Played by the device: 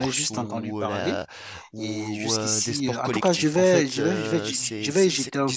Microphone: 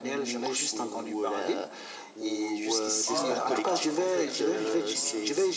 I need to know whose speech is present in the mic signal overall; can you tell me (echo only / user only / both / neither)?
both